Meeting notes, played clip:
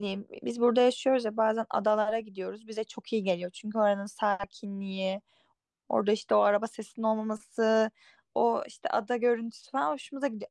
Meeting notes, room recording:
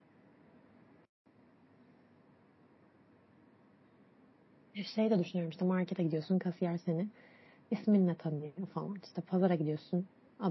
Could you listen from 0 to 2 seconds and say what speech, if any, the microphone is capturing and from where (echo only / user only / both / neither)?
neither